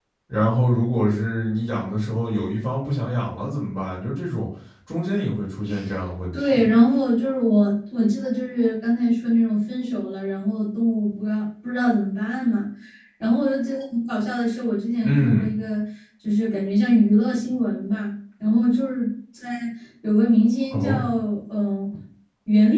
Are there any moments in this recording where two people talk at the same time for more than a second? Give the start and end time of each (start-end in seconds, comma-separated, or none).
none